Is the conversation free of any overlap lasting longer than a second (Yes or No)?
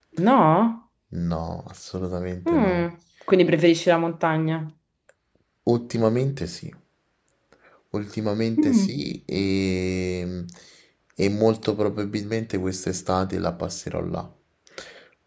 Yes